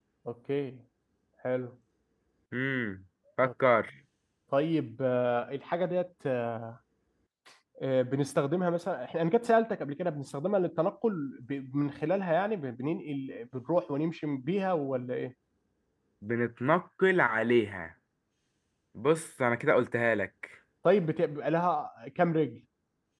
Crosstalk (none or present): none